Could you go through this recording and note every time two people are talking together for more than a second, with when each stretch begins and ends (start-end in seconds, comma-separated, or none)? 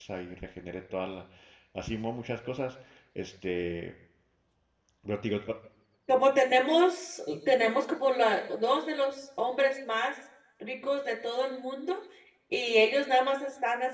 none